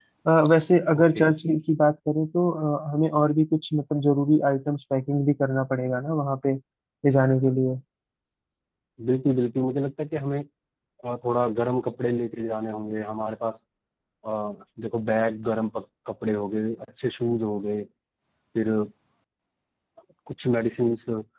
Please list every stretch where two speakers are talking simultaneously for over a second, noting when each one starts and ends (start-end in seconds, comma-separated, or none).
none